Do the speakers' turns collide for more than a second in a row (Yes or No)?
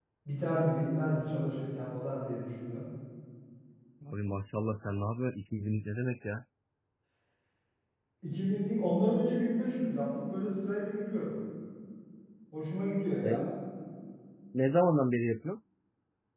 No